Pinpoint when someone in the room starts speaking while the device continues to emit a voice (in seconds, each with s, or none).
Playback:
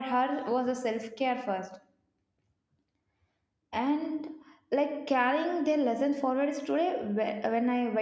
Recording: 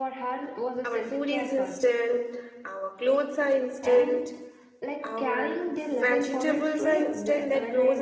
0.8 s